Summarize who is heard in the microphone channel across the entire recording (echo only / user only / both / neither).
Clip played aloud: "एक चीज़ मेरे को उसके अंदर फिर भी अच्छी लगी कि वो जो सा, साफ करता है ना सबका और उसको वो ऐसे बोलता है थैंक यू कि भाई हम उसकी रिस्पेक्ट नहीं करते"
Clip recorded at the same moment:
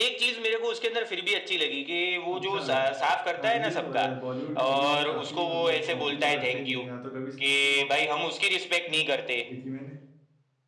both